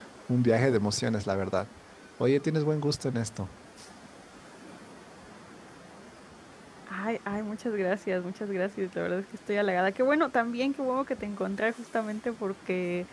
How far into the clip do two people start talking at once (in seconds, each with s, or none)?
none